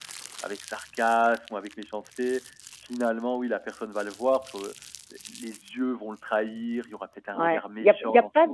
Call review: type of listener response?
taking over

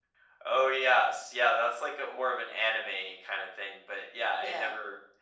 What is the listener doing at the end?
listening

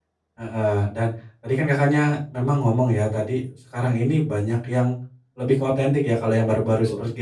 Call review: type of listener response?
listening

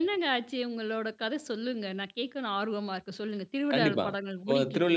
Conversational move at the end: taking over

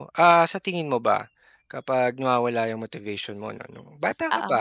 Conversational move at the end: listening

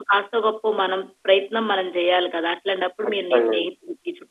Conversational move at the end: listening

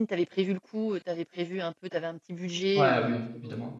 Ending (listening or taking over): taking over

